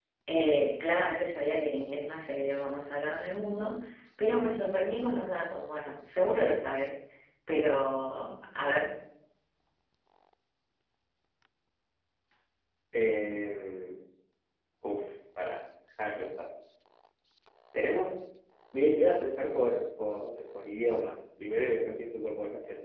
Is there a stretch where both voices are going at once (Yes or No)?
No